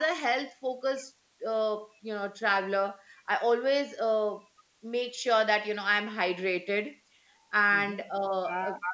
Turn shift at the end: Yes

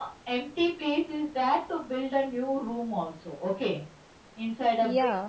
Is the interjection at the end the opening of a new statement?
No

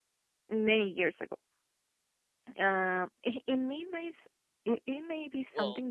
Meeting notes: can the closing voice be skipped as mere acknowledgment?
Yes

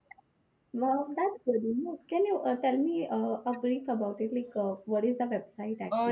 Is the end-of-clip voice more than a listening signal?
Yes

